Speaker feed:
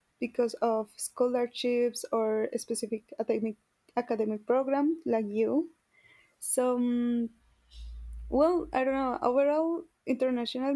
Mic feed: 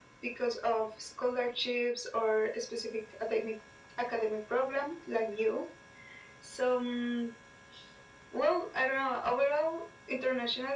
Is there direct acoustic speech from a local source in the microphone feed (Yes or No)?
No